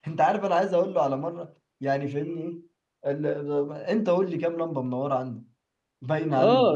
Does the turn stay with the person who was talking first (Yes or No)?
No